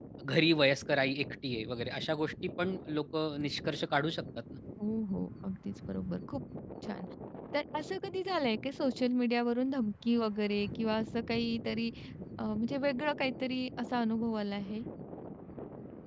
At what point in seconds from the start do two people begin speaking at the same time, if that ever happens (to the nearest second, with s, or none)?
none